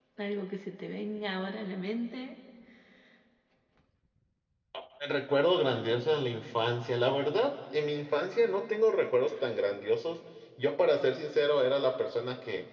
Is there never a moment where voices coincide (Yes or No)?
Yes